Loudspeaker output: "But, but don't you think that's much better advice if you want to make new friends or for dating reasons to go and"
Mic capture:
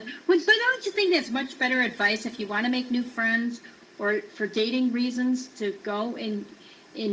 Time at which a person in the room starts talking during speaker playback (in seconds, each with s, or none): none